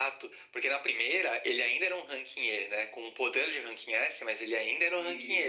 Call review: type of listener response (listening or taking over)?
listening